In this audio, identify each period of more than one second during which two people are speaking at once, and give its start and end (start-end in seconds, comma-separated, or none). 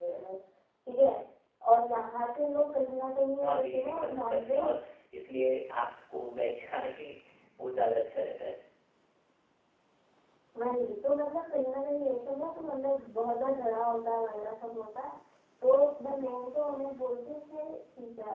3.5-4.8